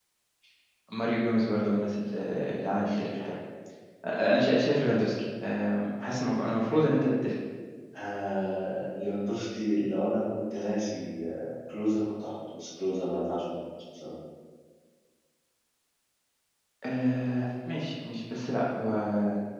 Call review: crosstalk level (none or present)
none